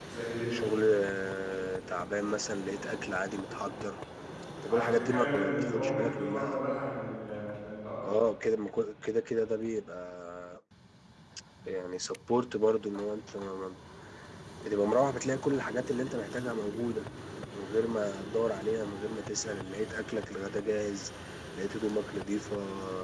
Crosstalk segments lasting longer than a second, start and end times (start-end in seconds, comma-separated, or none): 4.7-6.6